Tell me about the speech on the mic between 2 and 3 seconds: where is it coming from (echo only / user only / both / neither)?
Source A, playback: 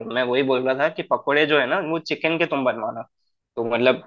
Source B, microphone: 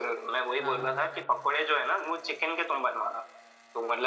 echo only